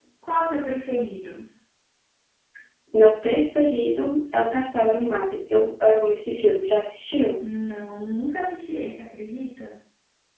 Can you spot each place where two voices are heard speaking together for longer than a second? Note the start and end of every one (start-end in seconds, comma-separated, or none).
none